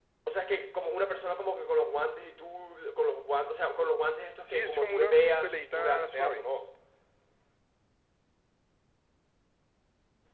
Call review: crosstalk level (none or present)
present